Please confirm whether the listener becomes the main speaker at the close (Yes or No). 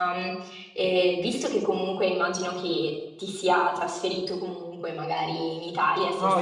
Yes